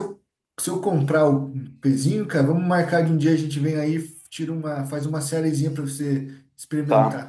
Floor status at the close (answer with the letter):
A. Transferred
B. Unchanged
A